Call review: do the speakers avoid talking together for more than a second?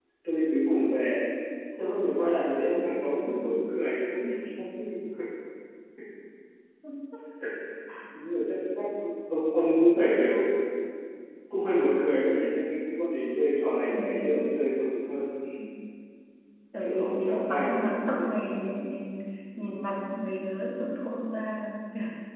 No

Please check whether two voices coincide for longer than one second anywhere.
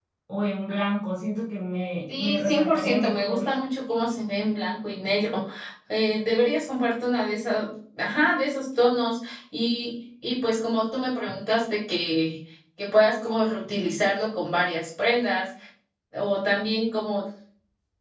Yes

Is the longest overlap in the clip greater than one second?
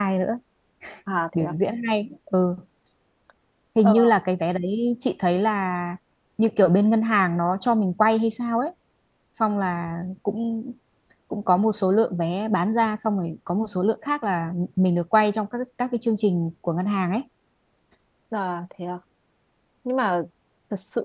No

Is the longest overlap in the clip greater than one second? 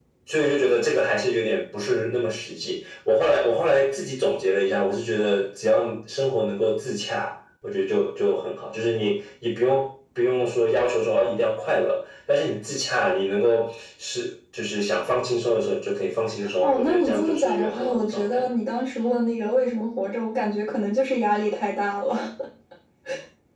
Yes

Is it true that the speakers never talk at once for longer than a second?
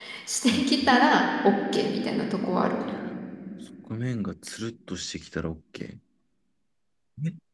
Yes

